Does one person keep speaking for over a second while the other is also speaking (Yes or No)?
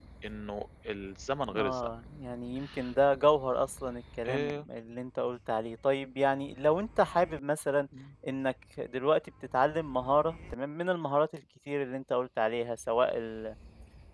No